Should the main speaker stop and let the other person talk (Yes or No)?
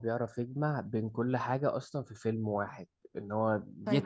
Yes